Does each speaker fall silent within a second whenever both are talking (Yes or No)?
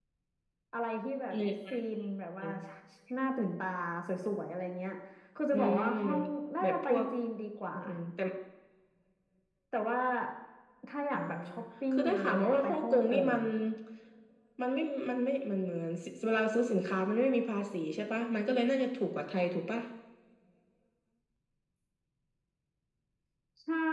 No